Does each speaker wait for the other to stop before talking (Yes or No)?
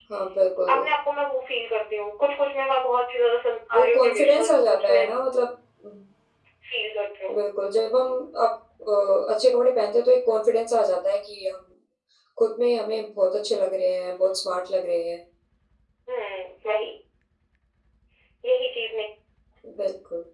No